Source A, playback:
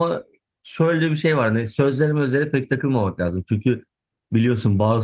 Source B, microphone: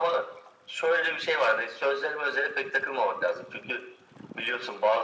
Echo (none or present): present